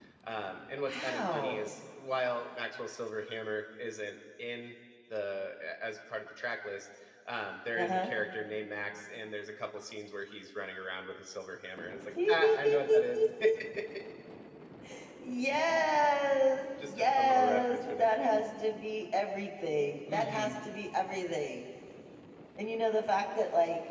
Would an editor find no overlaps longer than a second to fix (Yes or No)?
No